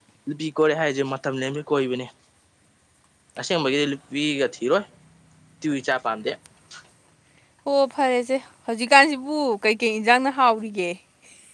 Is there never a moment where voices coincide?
Yes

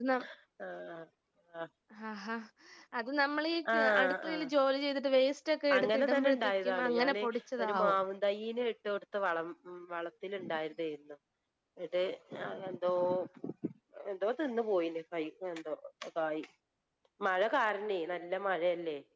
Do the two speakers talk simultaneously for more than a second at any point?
Yes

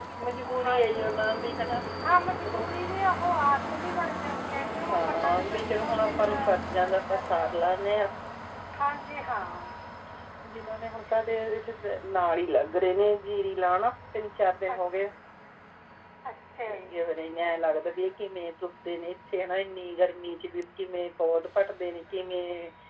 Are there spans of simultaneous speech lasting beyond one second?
Yes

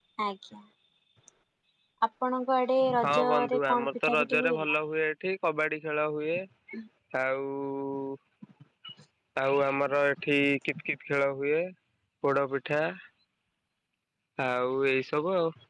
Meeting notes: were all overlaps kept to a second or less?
No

